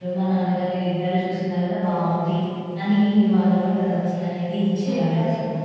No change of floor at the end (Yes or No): No